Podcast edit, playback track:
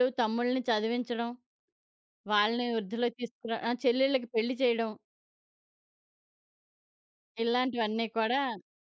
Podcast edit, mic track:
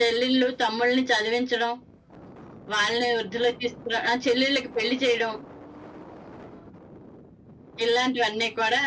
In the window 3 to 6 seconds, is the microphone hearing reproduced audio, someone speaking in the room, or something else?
echo only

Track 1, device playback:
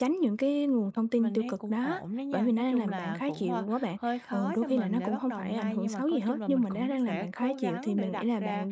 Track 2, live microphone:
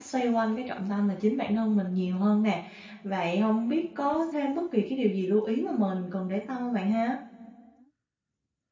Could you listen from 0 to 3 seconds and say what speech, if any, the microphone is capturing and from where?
user only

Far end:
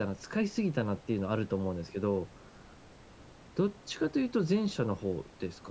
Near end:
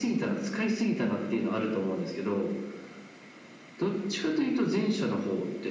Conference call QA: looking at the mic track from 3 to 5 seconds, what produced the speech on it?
echo only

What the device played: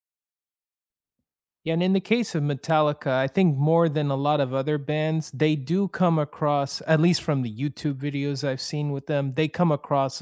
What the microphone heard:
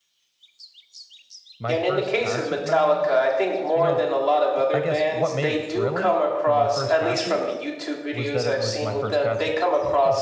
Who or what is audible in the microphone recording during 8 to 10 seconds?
both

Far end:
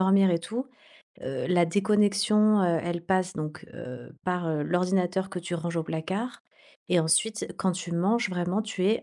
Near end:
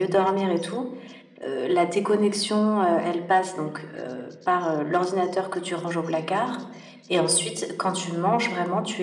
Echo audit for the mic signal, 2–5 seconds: echo only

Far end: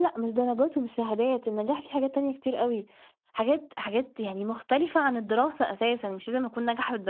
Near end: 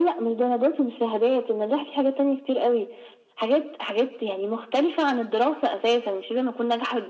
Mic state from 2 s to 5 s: echo only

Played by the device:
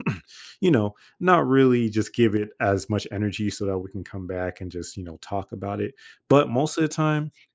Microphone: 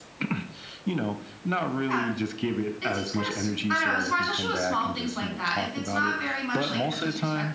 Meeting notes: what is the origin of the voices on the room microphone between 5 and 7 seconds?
both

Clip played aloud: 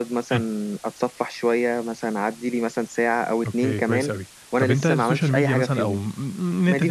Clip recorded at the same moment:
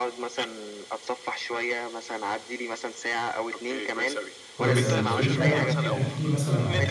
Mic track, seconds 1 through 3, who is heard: echo only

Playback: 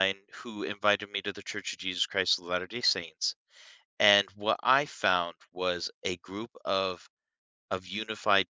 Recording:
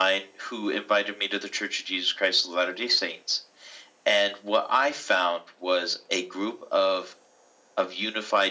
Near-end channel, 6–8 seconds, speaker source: echo only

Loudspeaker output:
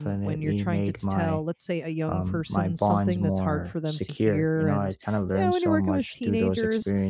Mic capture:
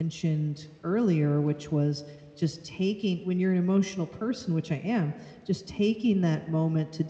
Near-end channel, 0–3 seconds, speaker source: user only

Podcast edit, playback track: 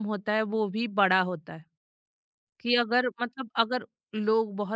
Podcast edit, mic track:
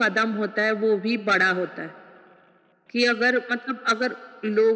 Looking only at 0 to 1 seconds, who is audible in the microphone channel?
echo only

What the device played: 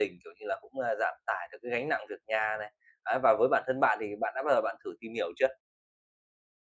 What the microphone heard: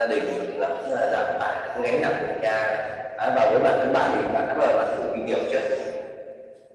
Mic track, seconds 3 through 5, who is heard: echo only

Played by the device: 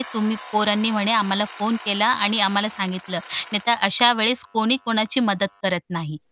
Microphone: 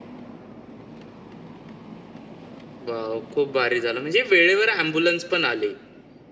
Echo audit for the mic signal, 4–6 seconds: user only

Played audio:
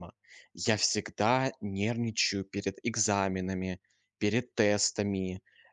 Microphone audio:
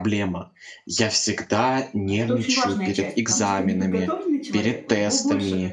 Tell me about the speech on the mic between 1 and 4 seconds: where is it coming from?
both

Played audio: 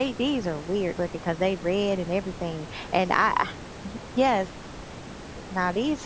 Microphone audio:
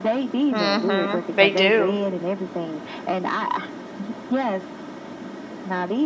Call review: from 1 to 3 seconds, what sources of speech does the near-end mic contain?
both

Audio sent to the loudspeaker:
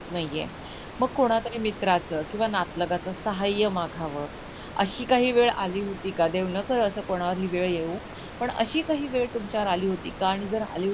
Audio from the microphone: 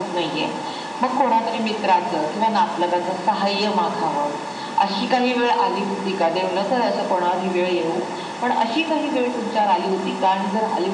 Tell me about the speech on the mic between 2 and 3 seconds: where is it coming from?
echo only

